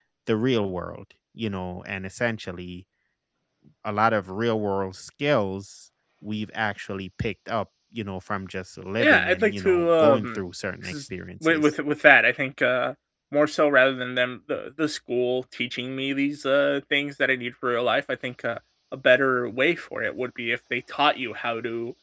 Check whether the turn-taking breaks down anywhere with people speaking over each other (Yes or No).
Yes